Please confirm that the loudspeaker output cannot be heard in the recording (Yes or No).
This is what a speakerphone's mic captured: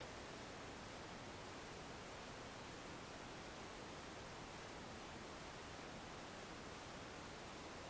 Yes